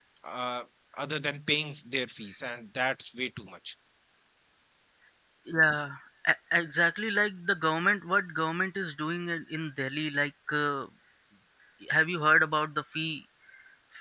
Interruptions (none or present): none